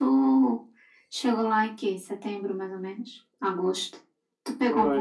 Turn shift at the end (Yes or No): Yes